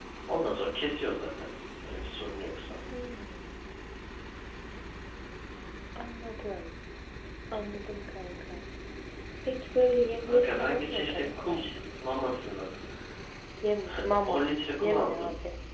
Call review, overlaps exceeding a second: present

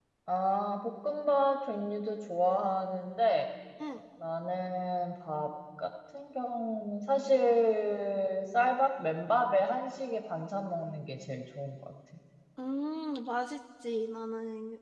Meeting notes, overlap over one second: none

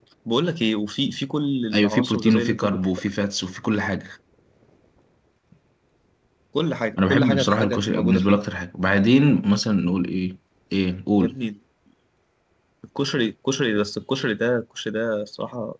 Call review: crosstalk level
present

